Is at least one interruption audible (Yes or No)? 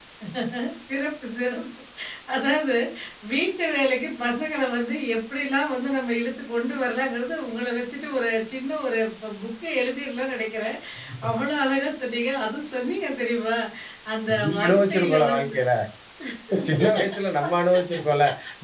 Yes